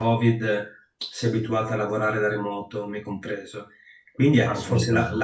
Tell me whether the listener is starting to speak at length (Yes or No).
No